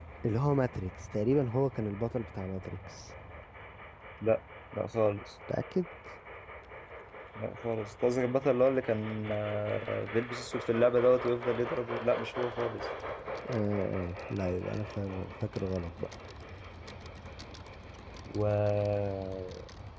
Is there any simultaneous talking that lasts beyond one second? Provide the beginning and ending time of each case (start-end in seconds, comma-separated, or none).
none